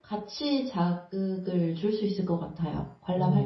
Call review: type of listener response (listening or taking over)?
taking over